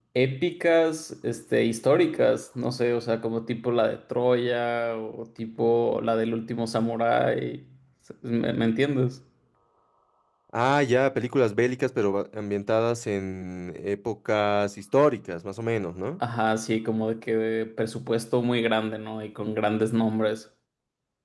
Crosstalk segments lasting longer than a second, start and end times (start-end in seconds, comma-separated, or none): none